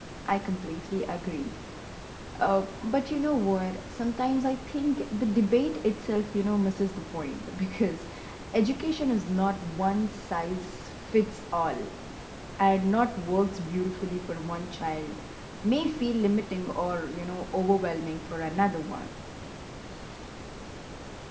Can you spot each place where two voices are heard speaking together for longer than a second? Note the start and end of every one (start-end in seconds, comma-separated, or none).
none